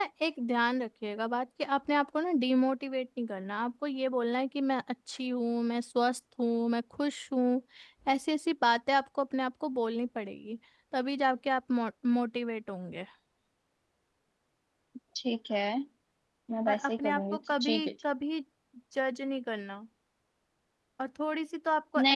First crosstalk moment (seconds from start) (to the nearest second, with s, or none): 17 s